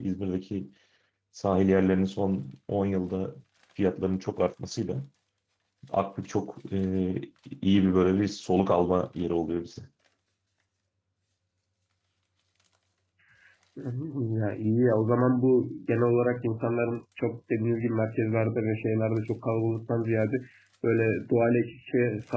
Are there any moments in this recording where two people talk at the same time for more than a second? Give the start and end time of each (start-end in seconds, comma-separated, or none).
none